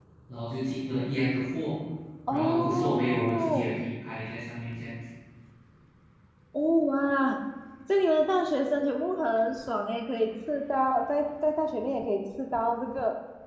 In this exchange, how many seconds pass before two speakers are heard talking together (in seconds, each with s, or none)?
2.3 s